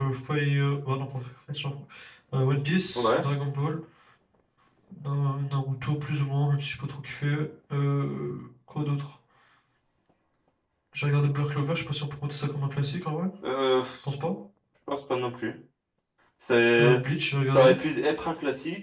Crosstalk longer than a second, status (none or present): none